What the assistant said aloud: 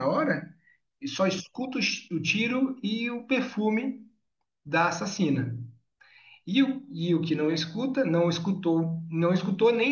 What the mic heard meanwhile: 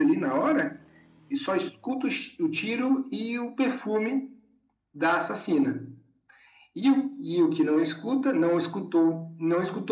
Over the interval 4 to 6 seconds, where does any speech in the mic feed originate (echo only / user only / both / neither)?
echo only